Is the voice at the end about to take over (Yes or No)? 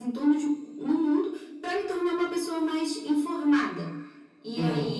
No